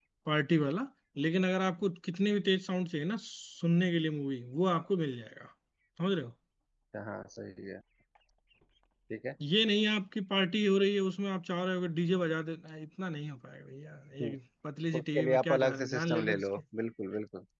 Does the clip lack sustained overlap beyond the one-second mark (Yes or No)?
No